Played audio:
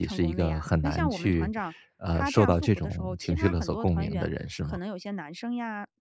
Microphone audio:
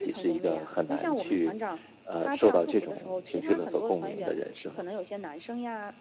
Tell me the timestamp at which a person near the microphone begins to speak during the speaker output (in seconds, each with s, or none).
none